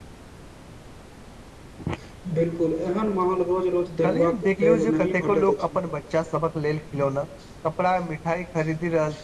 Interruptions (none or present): present